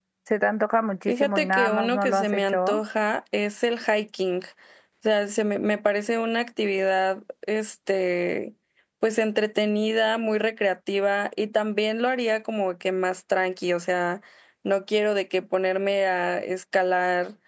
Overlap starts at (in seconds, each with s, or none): 1.1 s